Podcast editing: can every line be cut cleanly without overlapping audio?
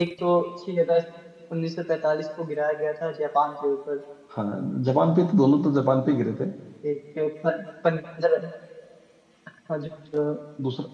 Yes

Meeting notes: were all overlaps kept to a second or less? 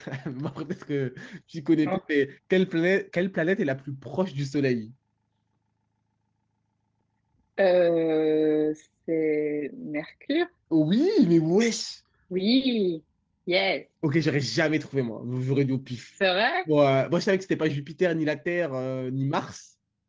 Yes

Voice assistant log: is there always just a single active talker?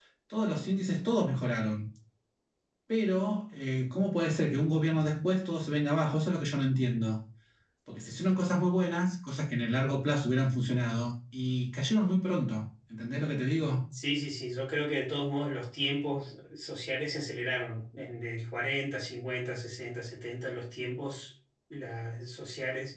Yes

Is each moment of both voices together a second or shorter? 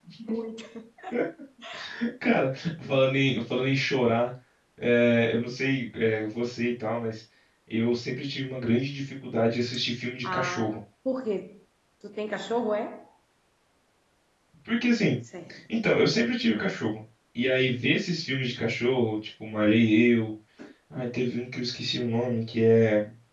Yes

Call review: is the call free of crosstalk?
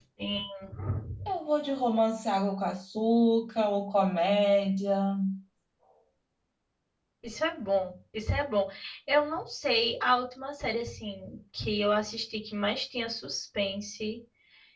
Yes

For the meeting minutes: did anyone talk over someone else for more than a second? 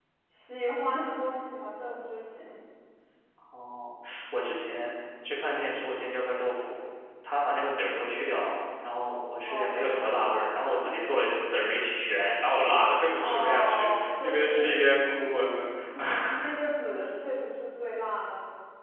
Yes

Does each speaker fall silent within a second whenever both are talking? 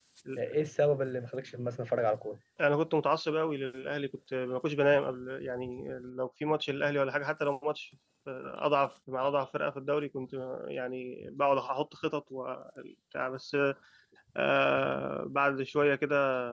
Yes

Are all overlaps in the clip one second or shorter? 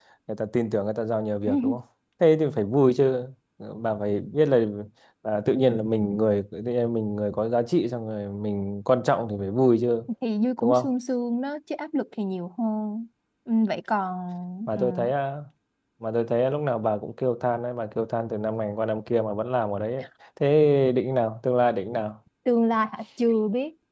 Yes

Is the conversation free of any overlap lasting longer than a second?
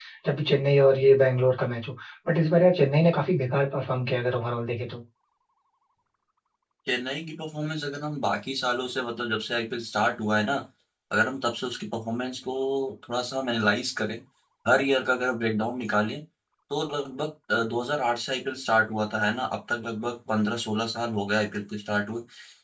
Yes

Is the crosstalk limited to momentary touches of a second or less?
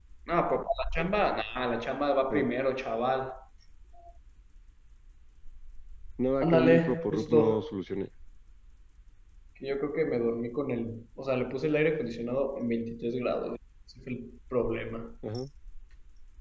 No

